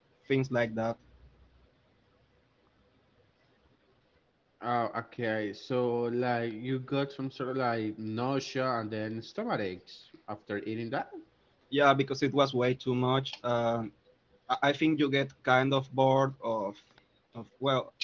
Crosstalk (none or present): none